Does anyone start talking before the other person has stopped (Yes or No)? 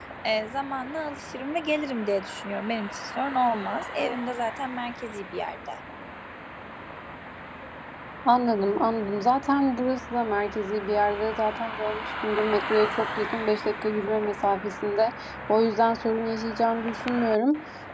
No